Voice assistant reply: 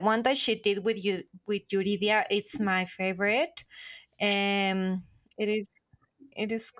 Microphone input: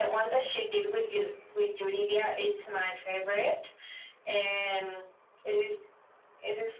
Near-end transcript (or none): none